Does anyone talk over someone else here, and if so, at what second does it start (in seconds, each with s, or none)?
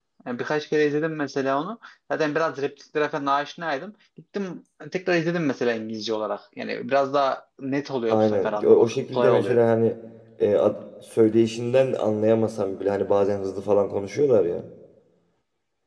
8.1 s